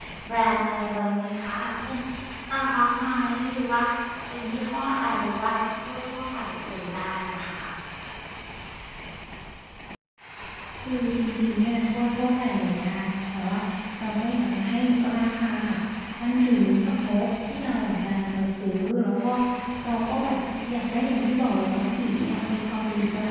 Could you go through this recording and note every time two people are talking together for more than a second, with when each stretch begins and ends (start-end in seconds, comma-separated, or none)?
none